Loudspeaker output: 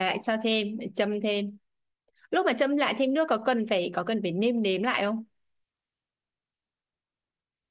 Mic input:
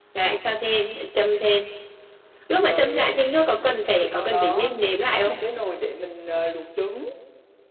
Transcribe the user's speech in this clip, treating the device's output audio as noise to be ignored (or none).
Rồi à, ừm, rồi sau đó mình bắt một cái nồi để mình à, luộc trứng.